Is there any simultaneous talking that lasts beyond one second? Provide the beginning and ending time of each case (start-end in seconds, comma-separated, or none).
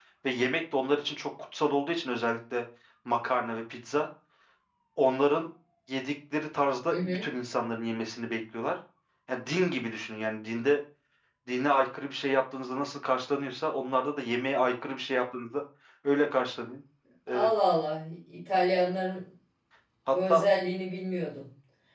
none